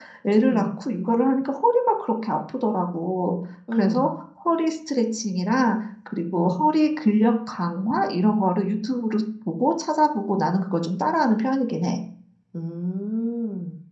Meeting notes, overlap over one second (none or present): none